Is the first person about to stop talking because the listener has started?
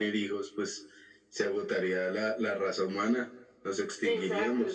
Yes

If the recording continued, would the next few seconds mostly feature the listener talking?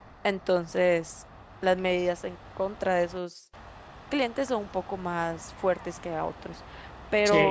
Yes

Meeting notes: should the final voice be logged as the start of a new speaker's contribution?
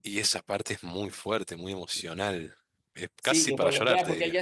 Yes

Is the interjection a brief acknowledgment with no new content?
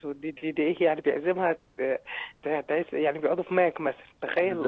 No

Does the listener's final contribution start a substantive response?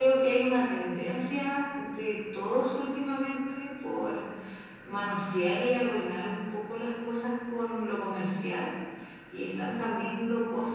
No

